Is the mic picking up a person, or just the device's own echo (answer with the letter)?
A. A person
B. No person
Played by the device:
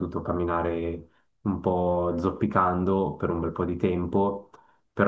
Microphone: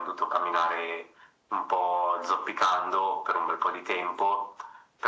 B